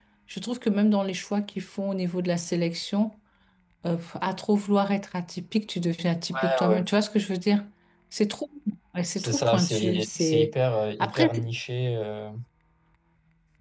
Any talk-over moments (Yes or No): Yes